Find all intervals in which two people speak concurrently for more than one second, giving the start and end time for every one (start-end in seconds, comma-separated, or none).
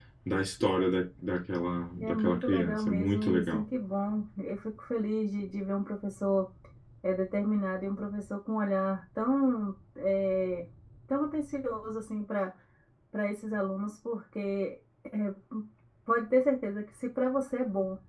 2.0-3.6